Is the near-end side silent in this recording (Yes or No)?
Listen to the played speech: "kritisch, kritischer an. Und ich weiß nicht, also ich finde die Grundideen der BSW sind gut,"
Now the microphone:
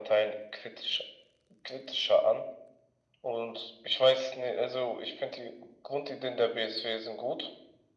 Yes